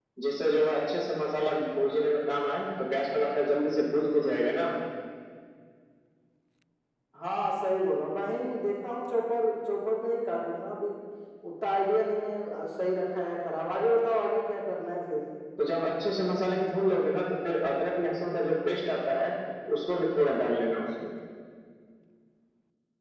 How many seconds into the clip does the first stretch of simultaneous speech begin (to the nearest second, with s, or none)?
none